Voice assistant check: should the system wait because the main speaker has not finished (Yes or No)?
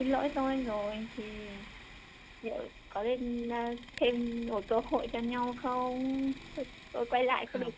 Yes